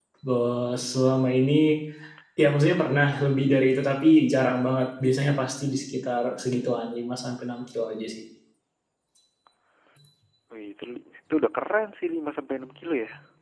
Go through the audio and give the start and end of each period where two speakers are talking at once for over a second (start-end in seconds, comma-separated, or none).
none